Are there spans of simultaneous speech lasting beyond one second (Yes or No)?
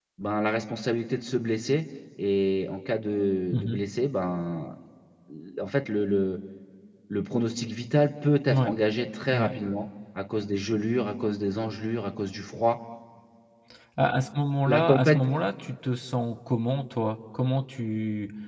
No